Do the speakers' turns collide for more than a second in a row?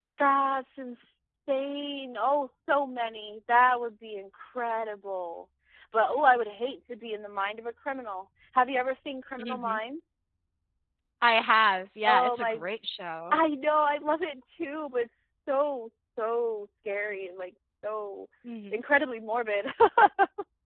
No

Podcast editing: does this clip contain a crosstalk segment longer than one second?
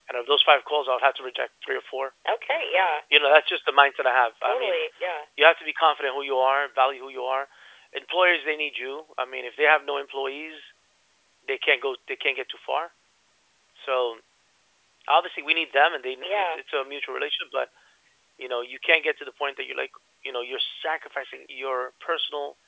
No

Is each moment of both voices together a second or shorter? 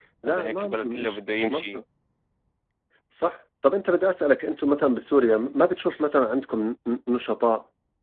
No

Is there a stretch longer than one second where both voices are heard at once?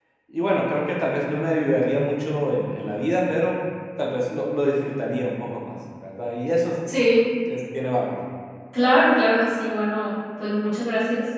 No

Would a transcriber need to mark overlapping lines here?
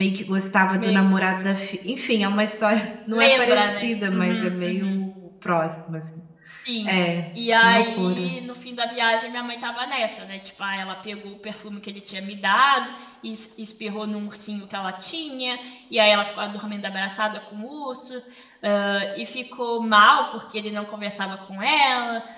Yes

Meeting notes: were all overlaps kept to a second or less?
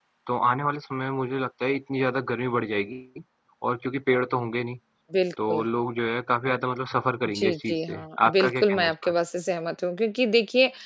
No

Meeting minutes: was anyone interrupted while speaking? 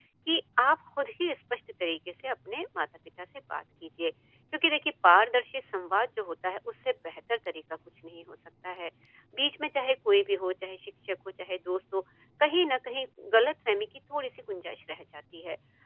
No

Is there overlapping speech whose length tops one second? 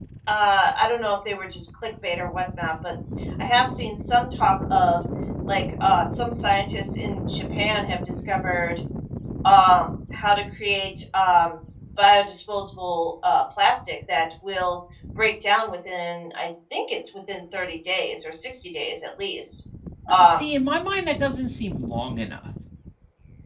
No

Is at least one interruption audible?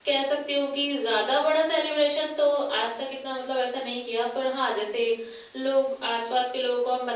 No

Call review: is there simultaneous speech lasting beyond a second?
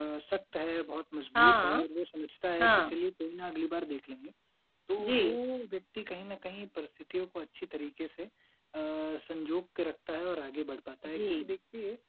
No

